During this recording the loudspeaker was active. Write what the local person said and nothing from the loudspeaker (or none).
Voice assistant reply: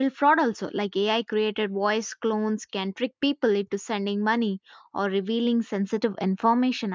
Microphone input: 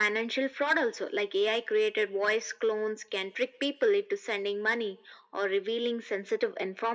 none